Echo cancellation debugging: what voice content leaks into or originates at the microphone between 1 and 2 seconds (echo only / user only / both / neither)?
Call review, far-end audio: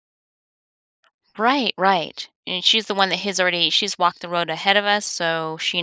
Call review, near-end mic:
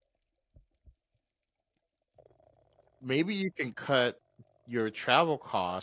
neither